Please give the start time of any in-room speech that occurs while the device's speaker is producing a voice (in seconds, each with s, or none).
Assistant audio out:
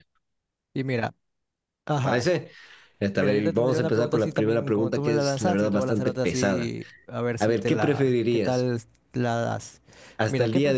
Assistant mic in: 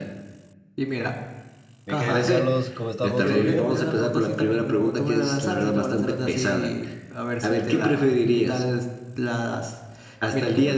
1.8 s